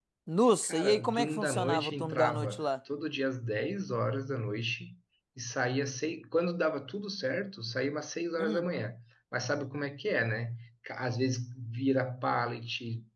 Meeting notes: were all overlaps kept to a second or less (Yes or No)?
No